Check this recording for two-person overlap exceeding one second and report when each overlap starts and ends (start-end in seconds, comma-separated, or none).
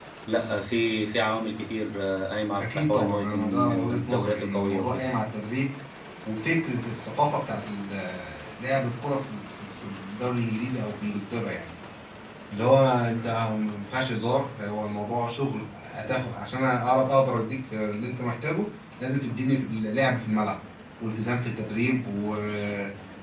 2.6-5.0